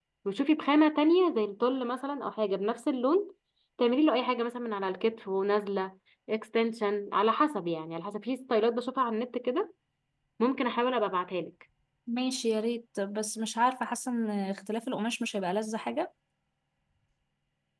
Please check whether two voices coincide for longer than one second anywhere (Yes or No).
No